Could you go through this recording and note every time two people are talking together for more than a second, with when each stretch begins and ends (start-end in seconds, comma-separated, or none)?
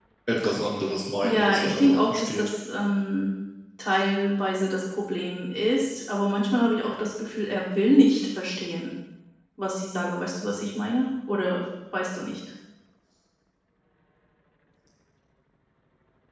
1.2-2.5